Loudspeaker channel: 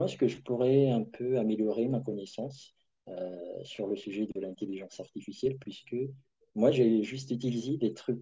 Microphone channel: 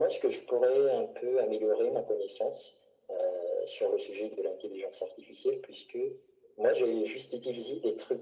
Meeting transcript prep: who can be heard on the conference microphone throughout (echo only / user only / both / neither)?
echo only